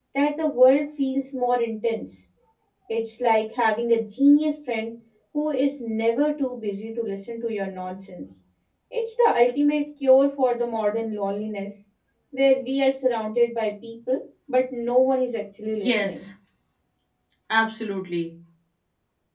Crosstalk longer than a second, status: none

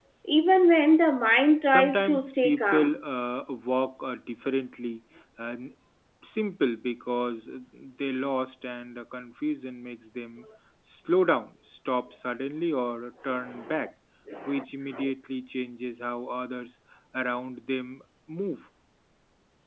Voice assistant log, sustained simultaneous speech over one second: present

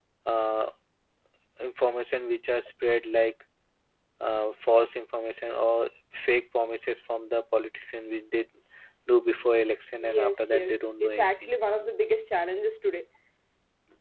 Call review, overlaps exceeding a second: present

